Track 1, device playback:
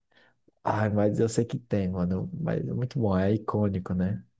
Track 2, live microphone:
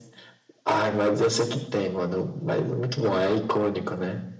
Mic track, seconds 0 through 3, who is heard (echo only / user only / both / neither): echo only